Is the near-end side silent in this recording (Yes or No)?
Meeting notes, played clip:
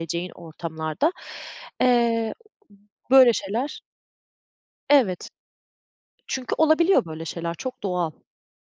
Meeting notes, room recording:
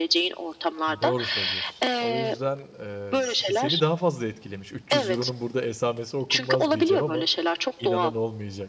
No